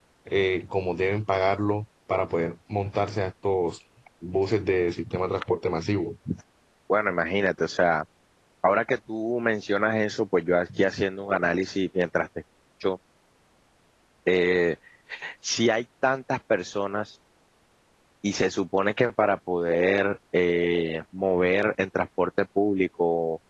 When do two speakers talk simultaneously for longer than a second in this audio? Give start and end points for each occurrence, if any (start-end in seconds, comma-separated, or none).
none